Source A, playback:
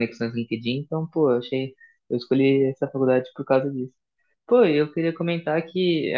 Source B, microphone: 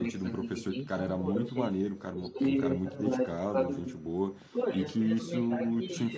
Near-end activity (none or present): present